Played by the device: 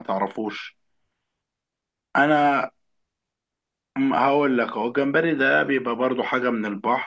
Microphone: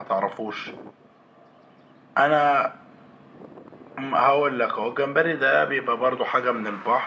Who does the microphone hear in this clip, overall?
echo only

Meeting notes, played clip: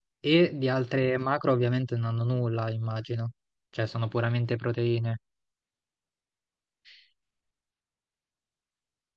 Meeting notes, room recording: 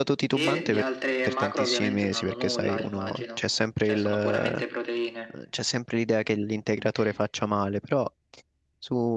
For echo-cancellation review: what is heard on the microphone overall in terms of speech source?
both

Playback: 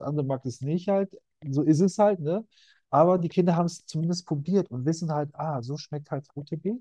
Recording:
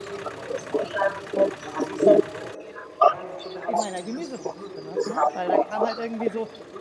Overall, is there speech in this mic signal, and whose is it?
both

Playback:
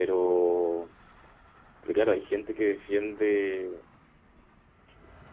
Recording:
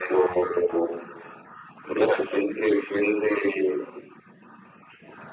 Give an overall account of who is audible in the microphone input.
echo only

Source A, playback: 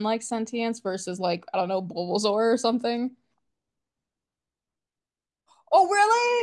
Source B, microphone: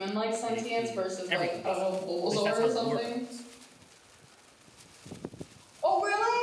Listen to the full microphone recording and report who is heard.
both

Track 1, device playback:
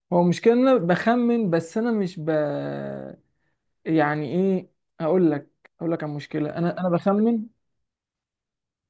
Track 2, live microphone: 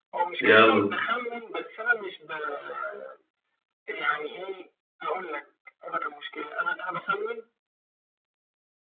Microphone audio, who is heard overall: both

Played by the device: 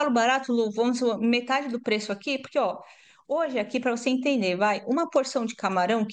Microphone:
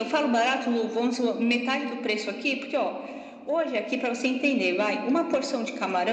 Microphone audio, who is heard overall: echo only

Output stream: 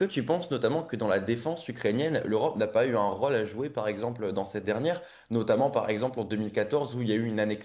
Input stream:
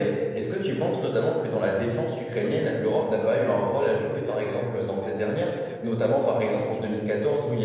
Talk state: both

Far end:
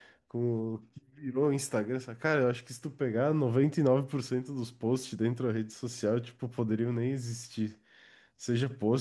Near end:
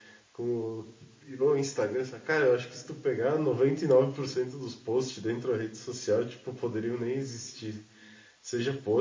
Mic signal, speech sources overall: echo only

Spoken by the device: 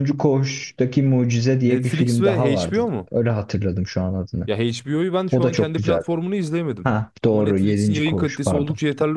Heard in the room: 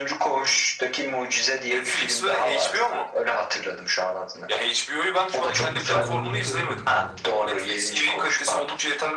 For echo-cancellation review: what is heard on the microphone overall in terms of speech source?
both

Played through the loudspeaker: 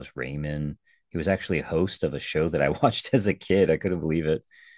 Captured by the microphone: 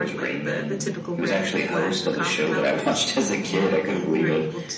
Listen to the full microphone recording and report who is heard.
both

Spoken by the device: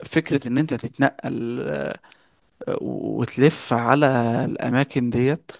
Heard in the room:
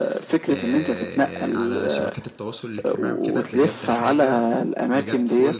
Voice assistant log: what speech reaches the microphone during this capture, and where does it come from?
both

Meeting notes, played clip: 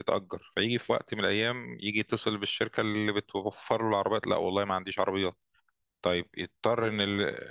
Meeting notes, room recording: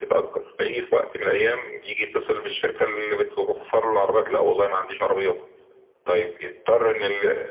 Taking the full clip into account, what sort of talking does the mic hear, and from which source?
echo only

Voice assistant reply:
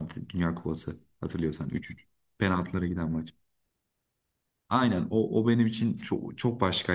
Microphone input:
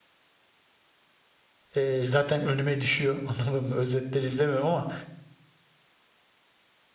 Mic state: user only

